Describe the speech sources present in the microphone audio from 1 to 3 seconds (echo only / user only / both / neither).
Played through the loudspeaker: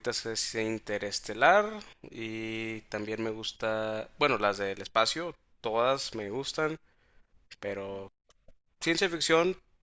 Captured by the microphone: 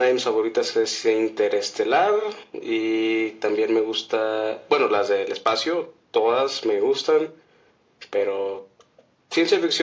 echo only